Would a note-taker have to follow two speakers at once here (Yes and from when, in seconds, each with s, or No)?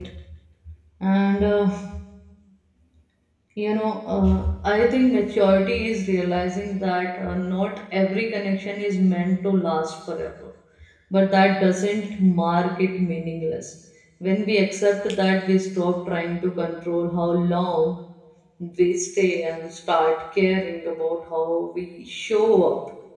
No